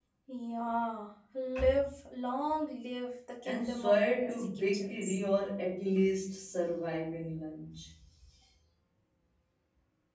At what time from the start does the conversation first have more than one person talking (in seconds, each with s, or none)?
3.4 s